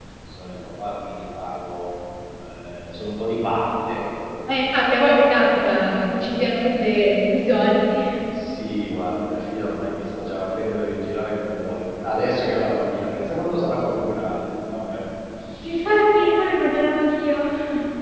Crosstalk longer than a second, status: none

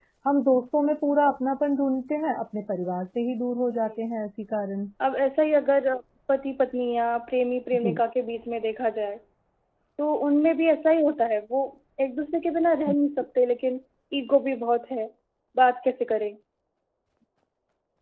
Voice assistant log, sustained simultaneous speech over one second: none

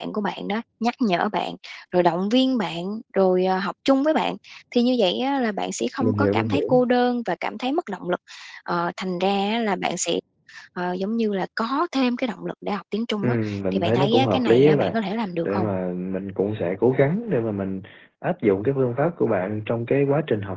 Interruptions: present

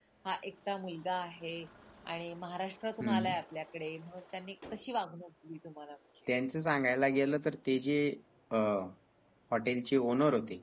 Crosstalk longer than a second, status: none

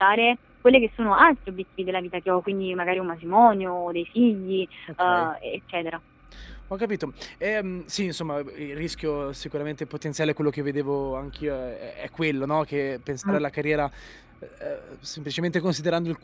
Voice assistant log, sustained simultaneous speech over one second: none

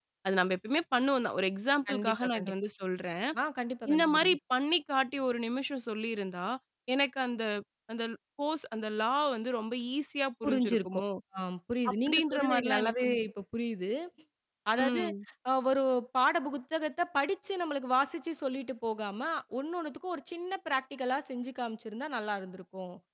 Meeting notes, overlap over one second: present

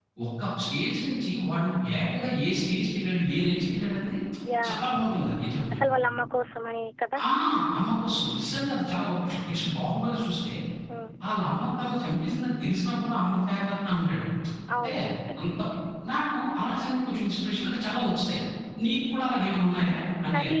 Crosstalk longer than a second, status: none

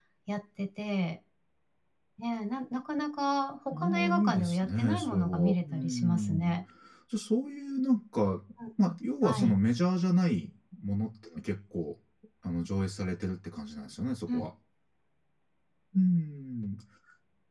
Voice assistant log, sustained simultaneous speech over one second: present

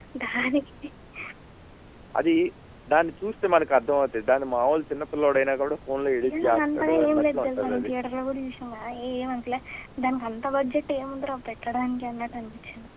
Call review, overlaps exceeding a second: present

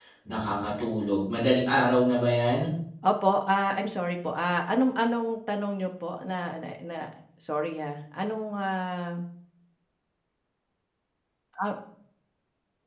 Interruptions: none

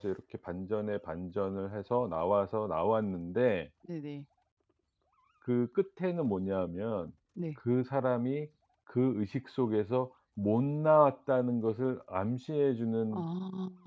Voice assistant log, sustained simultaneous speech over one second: none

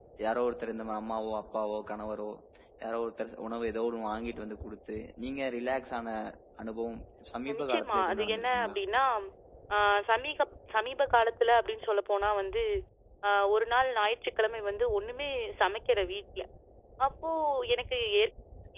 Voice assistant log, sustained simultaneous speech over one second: present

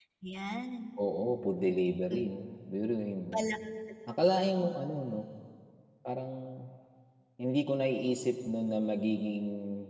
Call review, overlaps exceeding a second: none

